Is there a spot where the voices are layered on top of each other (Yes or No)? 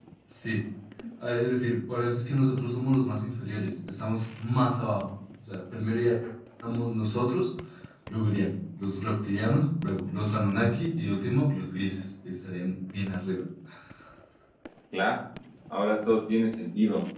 No